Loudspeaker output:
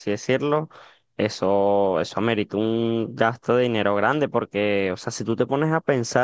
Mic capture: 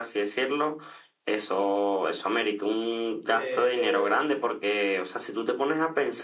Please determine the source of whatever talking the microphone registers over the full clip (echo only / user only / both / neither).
both